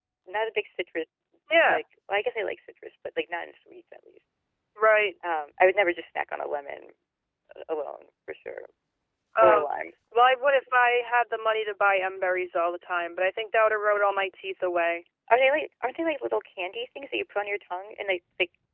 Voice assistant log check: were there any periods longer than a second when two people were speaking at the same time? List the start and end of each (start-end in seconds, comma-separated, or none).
none